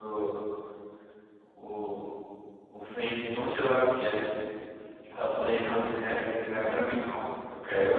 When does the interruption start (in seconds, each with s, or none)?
5.6 s